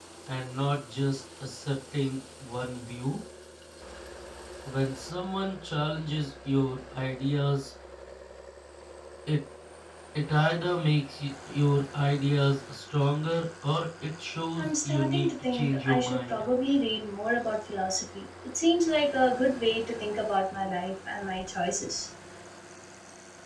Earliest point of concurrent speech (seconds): 14.6 s

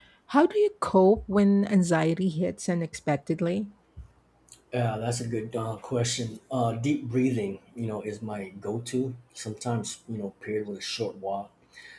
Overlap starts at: none

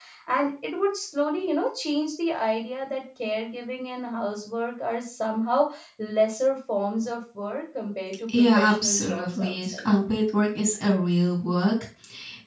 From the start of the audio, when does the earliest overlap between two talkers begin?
8.3 s

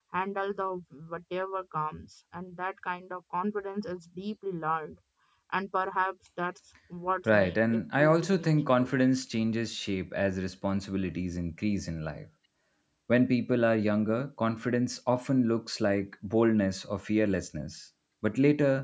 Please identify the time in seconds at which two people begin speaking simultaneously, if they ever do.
7.3 s

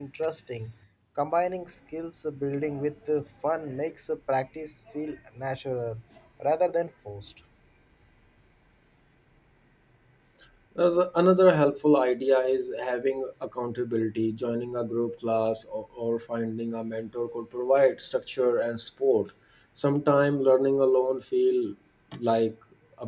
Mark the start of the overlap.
none

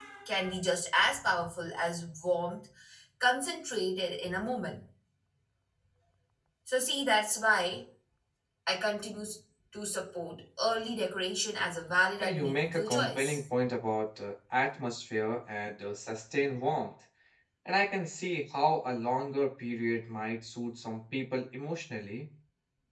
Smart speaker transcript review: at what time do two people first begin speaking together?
12.2 s

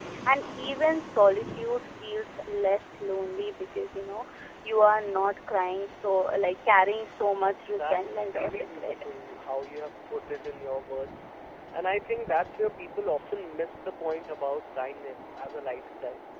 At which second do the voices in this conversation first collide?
7.6 s

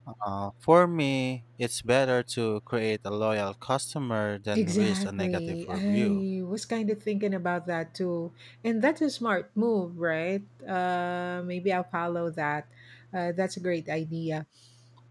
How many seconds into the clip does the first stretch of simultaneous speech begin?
4.5 s

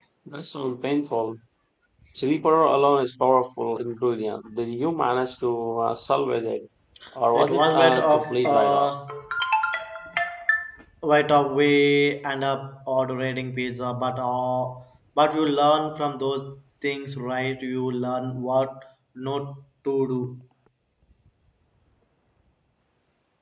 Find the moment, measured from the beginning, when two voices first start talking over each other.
7.3 s

